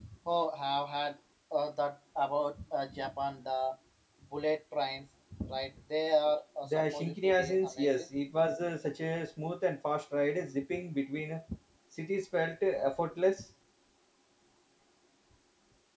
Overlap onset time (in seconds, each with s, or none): 6.7 s